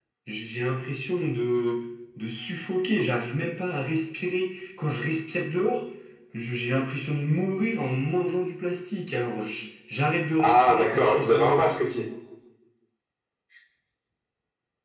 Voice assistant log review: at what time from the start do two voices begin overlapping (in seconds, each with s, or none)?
10.4 s